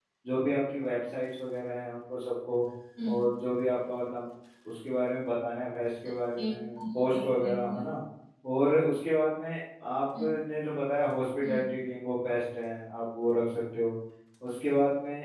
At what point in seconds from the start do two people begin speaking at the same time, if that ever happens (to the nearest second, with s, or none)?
6 s